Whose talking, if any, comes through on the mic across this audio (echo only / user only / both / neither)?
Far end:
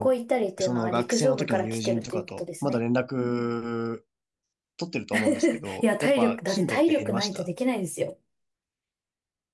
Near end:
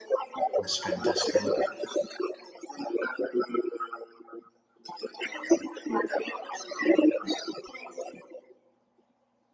both